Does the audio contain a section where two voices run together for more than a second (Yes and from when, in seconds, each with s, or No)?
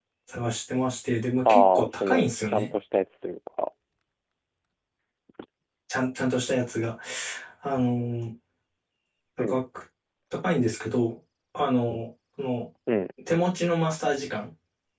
Yes, from 1.4 s